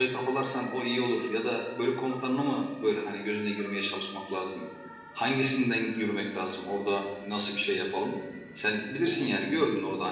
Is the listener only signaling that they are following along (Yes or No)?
Yes